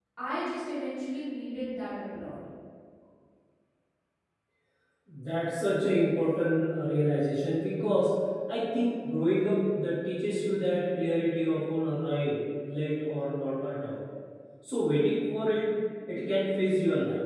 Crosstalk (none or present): none